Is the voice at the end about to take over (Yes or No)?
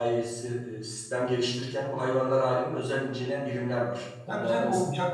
Yes